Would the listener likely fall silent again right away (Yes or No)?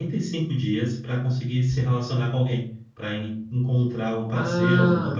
No